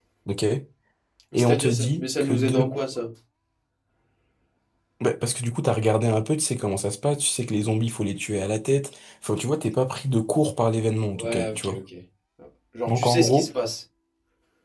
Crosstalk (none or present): present